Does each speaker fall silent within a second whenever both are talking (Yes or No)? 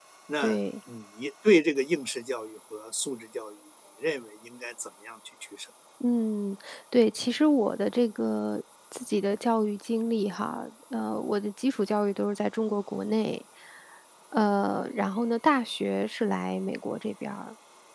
Yes